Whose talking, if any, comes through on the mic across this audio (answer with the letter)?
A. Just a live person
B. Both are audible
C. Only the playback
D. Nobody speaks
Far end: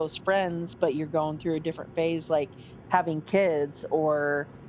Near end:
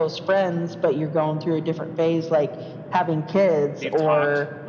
B